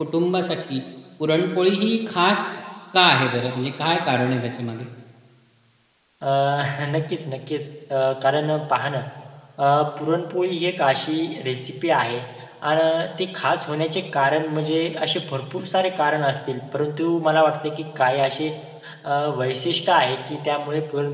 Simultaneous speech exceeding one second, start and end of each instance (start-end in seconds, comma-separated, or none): none